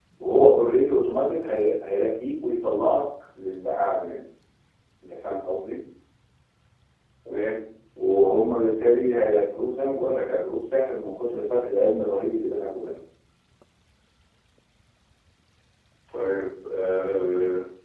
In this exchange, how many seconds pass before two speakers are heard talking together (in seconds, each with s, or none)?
none